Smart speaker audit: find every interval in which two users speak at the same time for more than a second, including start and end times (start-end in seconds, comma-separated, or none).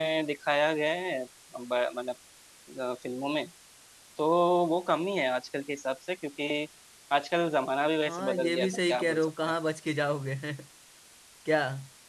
8.1-9.3